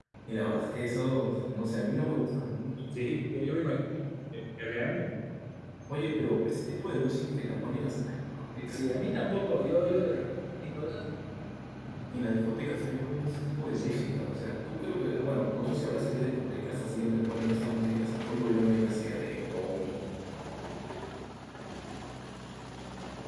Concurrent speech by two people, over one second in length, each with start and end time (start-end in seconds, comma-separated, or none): none